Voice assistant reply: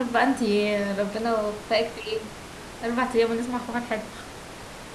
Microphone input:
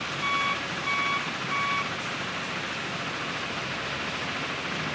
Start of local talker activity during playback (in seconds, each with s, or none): none